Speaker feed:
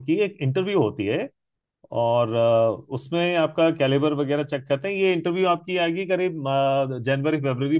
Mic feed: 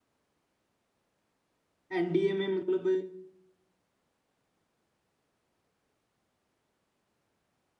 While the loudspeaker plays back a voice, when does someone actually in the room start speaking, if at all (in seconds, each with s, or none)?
2.0 s